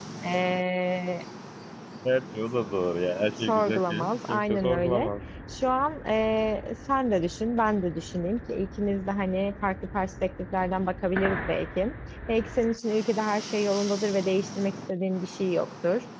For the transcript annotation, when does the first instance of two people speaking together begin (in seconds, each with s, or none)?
3.4 s